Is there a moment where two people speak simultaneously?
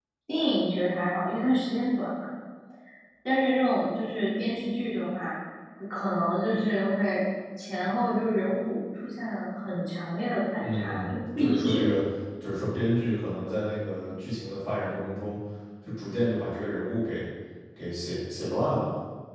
Yes, from 10.6 s

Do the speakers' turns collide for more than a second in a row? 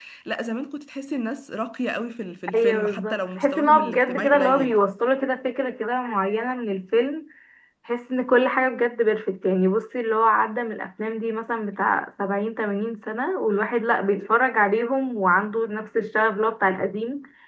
Yes, from 2.5 s

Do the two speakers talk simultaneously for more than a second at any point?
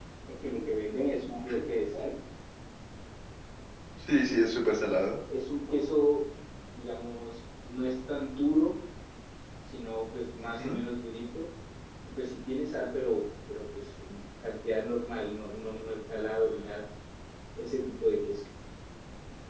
No

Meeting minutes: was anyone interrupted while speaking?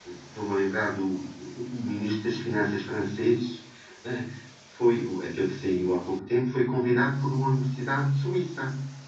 No

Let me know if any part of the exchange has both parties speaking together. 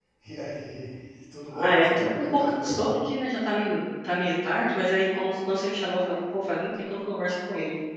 Yes, from 1.5 s

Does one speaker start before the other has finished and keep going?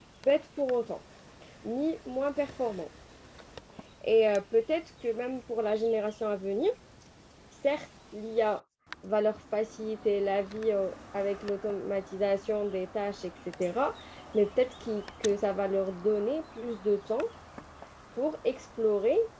No

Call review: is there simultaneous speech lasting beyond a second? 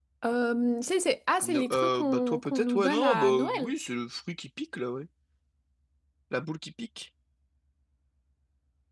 Yes, from 1.4 s

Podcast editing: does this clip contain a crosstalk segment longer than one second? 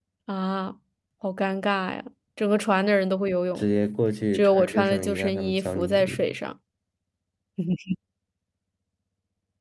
Yes, from 4.3 s

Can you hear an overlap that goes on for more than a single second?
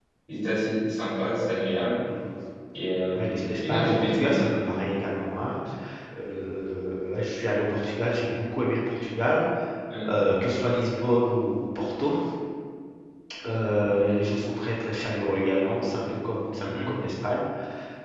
Yes, from 3.2 s

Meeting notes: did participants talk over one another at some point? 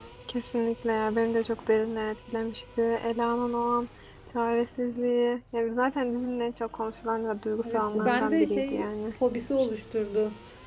Yes, from 7.6 s

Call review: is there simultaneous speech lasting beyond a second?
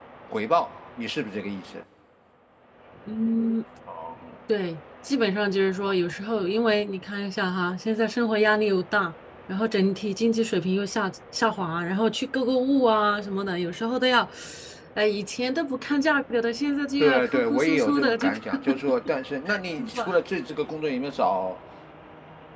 Yes, from 17.0 s

